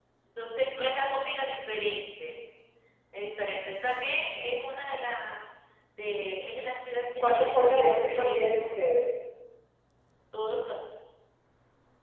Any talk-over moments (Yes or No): Yes